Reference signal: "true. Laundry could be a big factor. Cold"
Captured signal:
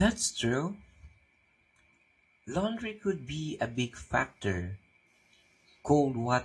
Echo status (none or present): present